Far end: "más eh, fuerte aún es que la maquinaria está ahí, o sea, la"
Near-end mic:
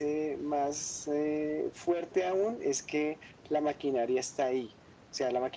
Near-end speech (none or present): none